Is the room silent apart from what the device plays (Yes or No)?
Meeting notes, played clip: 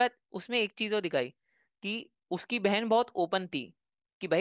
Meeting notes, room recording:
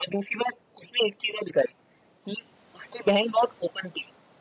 Yes